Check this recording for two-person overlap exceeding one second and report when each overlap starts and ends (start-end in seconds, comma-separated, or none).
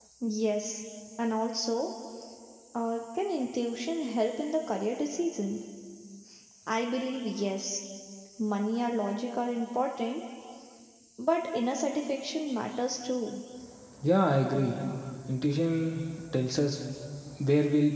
none